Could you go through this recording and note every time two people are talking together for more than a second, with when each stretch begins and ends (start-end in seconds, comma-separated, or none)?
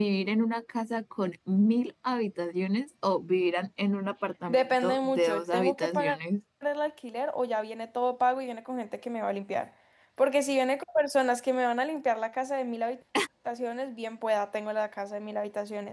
4.5-6.2